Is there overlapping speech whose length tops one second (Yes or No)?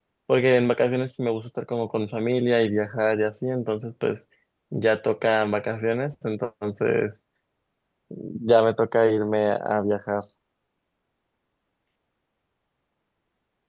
No